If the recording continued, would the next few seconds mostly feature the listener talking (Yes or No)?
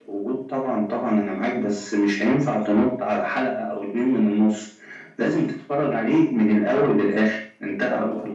Yes